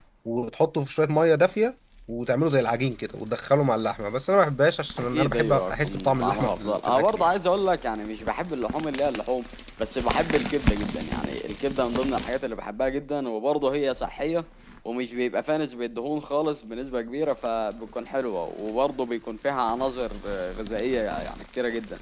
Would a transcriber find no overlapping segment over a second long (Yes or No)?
No